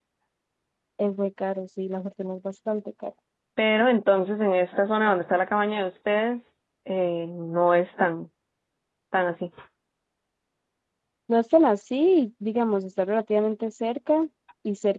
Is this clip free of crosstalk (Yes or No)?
Yes